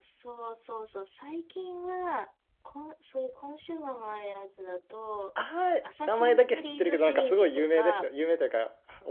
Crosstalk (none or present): present